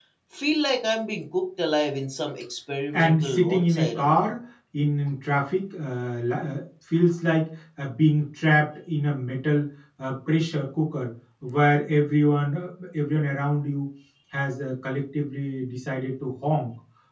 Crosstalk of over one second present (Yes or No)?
Yes